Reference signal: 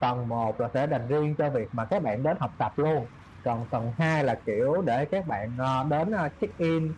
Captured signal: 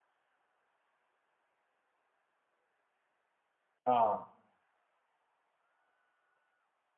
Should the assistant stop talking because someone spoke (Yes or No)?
Yes